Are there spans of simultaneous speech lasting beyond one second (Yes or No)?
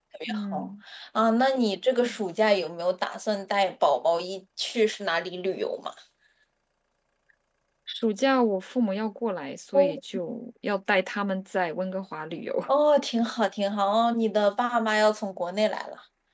No